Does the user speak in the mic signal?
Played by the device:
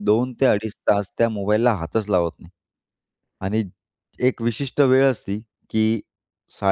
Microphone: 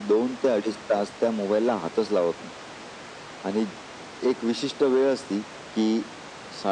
No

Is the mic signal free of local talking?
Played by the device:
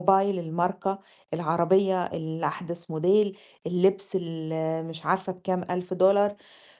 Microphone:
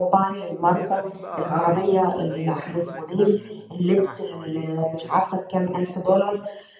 No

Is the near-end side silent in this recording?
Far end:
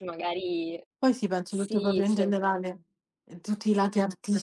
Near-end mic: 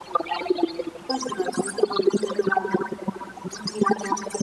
Yes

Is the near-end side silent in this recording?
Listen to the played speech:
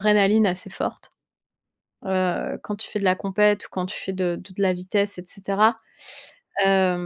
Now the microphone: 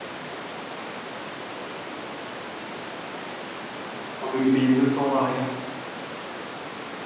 No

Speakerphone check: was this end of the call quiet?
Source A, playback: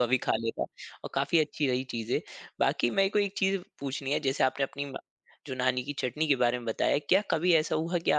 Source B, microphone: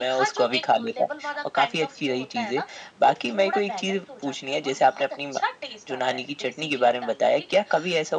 No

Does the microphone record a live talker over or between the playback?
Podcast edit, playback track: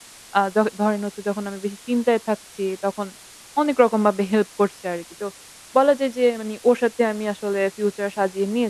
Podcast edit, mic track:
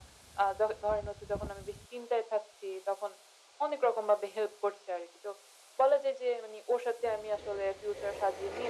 No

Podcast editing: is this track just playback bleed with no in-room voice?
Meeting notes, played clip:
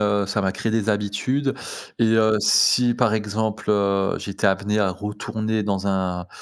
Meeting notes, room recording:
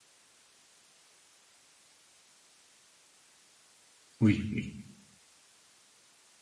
No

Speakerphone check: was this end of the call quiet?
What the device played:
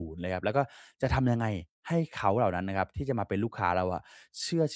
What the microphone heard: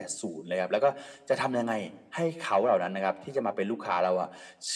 Yes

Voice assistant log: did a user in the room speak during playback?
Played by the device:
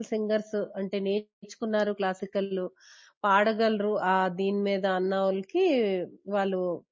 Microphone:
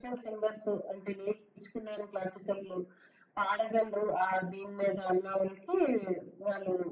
No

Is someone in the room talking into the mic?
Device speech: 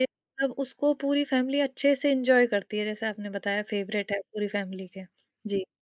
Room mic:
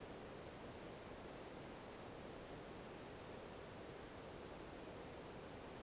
No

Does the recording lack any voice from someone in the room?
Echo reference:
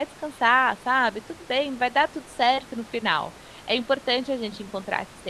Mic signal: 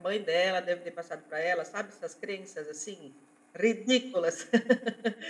No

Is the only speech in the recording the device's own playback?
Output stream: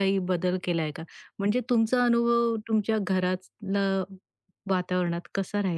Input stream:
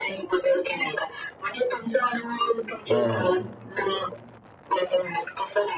No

